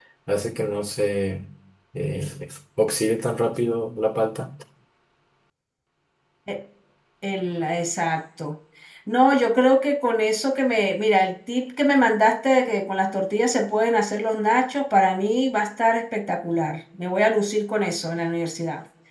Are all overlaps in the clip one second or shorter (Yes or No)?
Yes